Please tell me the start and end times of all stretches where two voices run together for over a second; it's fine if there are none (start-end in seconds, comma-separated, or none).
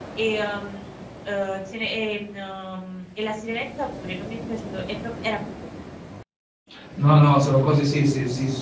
none